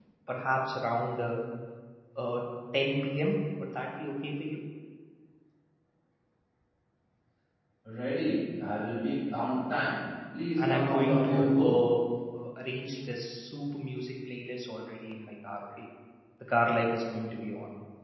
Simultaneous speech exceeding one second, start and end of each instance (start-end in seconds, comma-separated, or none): 10.6-11.8